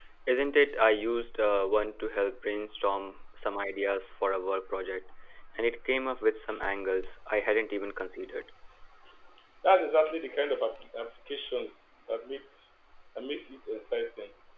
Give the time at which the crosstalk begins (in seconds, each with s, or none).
none